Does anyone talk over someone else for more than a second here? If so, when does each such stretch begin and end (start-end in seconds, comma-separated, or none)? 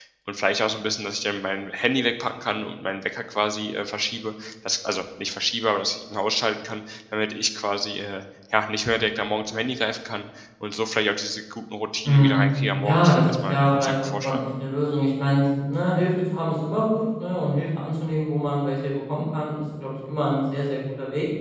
12.8-14.4